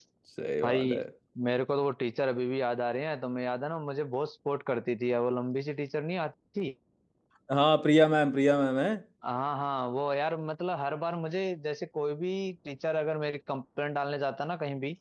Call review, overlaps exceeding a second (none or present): none